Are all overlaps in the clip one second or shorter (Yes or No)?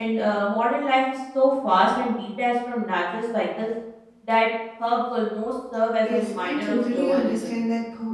No